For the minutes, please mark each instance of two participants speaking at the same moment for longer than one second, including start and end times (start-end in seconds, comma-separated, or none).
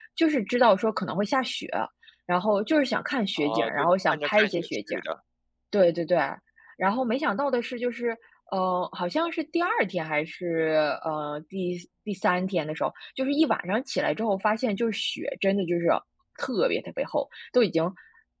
3.4-5.0